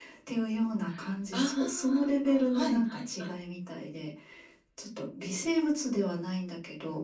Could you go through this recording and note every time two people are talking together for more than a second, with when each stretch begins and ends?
1.3-3.3

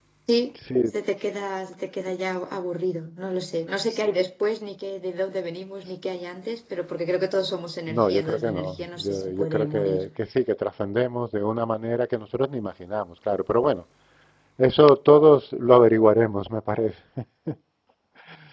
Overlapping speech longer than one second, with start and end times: 7.9-10.1

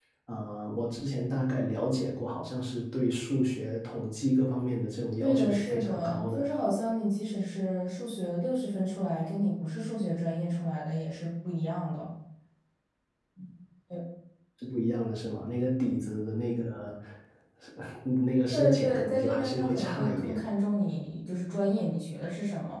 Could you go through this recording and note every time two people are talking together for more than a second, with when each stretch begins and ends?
5.2-6.5, 18.5-20.4

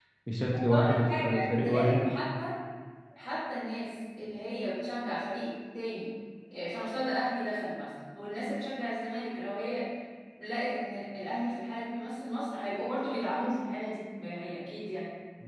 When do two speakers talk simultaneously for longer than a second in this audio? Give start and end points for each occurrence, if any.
0.7-2.0

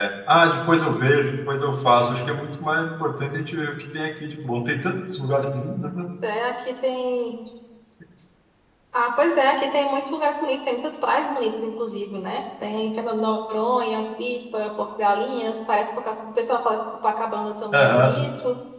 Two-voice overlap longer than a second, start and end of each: none

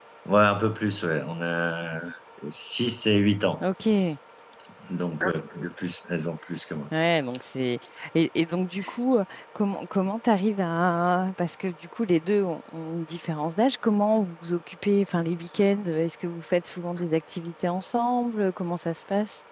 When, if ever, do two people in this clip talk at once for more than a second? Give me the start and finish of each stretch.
none

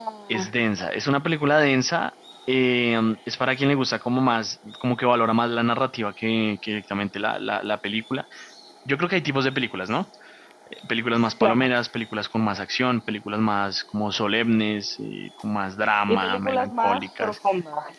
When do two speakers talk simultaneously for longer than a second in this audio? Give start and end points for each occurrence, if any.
16.1-17.4

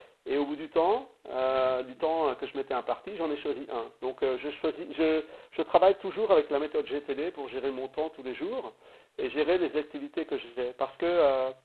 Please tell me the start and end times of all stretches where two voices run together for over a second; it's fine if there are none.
none

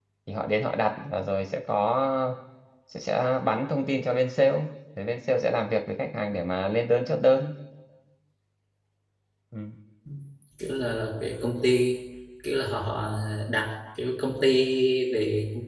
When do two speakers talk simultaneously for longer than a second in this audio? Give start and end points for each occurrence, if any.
none

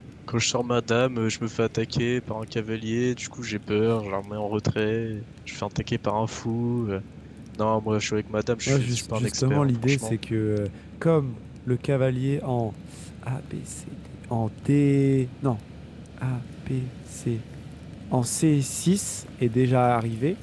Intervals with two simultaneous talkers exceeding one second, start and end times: 8.7-10.2

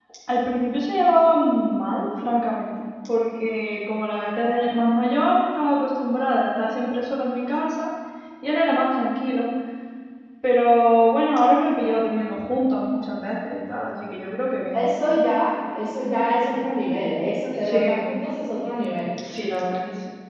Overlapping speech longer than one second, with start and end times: none

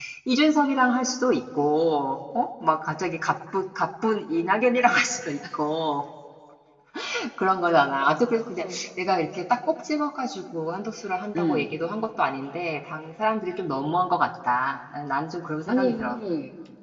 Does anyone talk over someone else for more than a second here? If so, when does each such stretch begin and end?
none

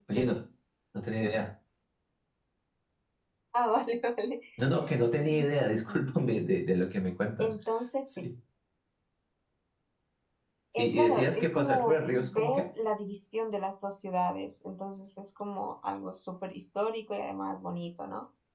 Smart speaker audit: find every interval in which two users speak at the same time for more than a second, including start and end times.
5.2-6.5, 10.8-12.7

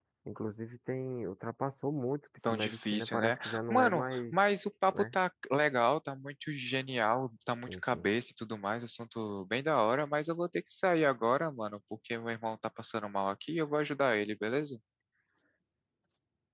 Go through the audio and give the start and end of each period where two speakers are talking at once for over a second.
2.5-4.3

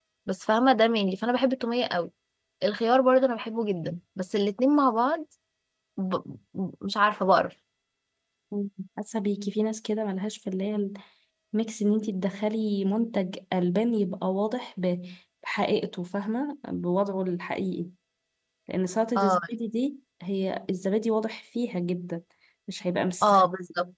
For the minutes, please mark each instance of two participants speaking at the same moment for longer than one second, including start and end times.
none

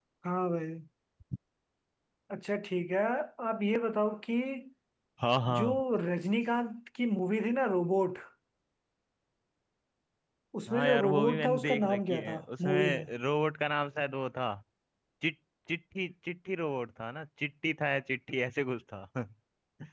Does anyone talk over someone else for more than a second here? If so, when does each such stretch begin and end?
10.7-13.0

